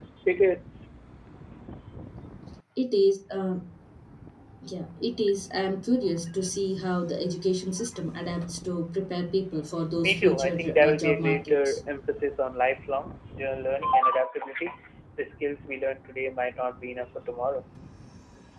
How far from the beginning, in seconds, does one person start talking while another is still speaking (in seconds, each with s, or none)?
10.0 s